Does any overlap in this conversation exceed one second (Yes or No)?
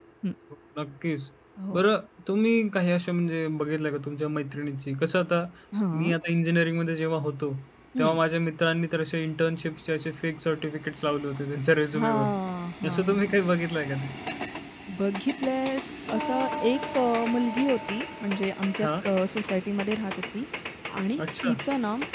No